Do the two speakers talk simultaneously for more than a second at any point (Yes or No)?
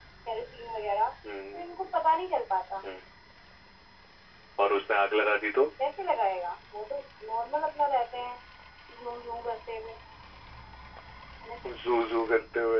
No